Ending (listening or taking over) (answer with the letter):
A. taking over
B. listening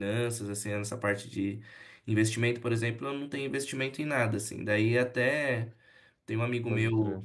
B